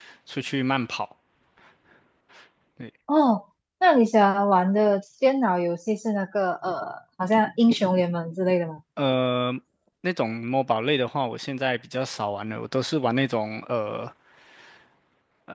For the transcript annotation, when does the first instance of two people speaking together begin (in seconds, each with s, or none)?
none